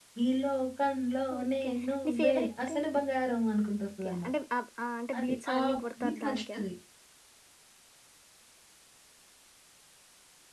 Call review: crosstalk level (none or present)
present